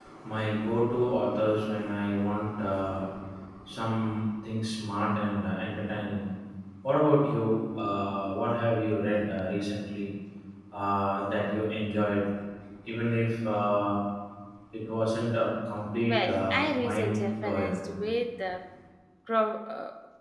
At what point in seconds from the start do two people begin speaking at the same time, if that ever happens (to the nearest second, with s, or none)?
16 s